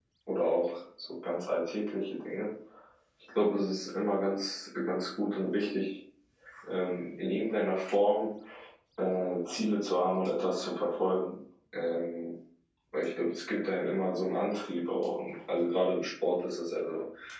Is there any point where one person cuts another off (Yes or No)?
No